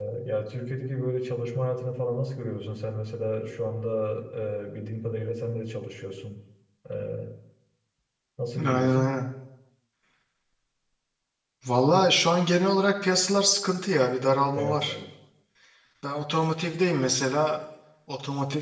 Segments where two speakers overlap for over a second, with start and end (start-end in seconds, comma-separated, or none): none